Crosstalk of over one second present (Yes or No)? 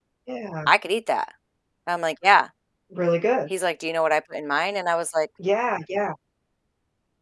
No